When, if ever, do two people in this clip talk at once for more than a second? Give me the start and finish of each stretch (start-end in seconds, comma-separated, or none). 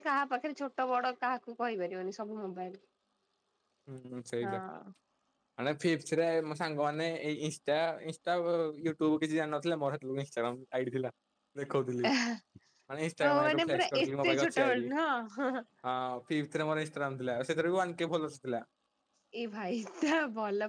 13.2-14.8